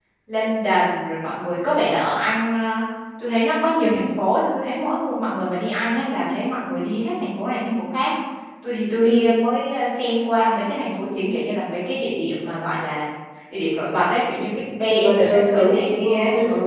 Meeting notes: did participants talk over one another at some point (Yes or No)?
Yes